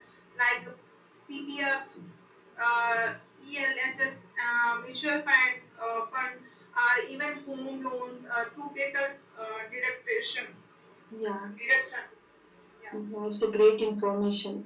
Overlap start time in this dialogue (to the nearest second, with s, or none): none